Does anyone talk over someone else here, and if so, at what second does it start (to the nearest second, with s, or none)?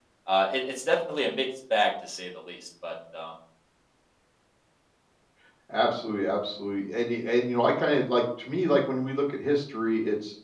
none